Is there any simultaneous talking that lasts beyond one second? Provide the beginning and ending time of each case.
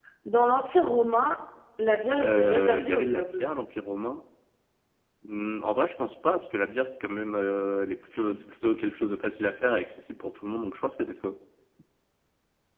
2.2-3.5

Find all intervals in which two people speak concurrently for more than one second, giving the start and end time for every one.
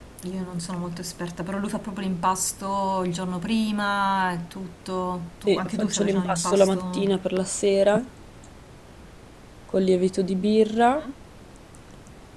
5.5-7.2

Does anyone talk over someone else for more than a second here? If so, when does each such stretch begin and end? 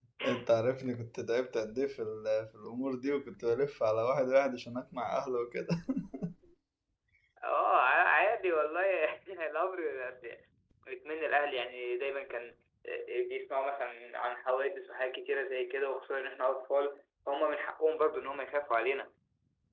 none

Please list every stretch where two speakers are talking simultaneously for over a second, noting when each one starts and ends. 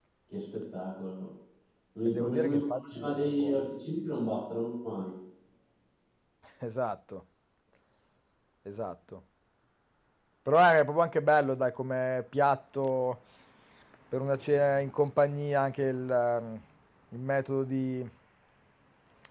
2.0-3.6

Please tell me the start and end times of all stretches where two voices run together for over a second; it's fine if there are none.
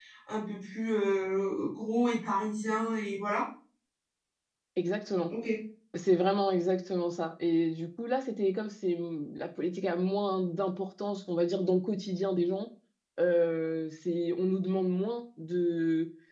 none

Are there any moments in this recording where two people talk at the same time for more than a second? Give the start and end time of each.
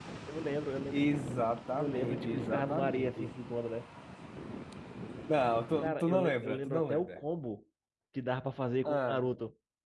1.8-3.3, 5.8-7.2

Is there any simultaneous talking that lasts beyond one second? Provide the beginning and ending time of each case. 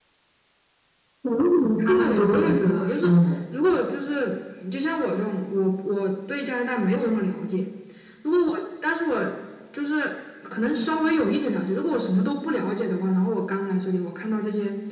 1.9-3.1

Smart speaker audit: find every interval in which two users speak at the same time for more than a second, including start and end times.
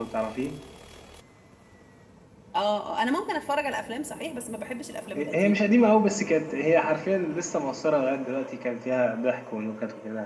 none

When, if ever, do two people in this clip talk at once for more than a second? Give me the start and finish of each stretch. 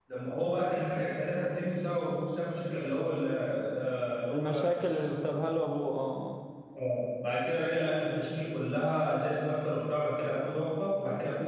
4.3-5.6

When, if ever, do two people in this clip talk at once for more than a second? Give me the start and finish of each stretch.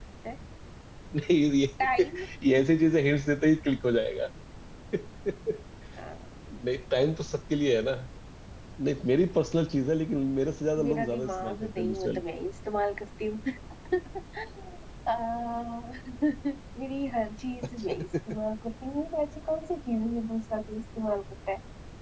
10.8-12.2

